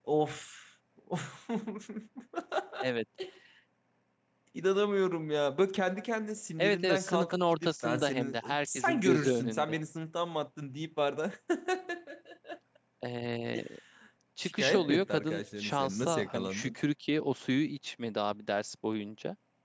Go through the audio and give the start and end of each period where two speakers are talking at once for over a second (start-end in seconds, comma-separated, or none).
6.6-9.7, 14.4-16.7